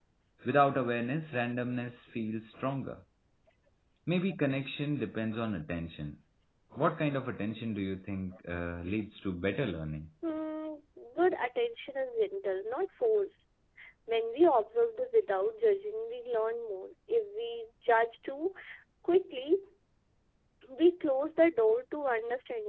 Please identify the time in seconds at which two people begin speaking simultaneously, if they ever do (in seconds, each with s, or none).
none